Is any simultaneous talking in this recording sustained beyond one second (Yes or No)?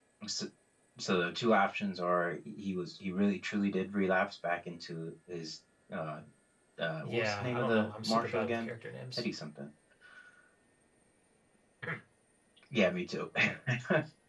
Yes